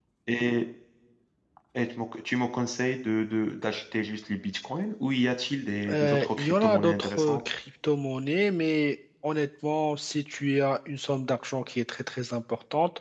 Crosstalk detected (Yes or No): Yes